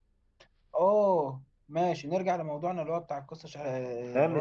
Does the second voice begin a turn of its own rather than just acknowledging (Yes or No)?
Yes